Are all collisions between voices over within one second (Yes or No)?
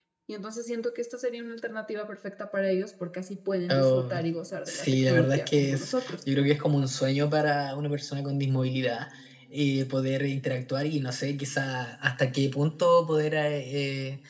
No